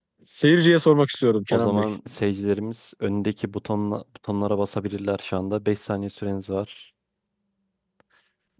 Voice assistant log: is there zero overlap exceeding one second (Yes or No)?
Yes